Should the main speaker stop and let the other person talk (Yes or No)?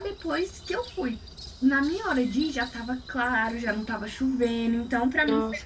Yes